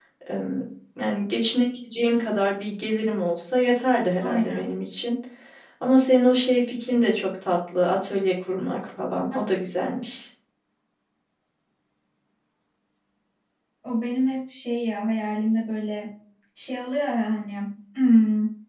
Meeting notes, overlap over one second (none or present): none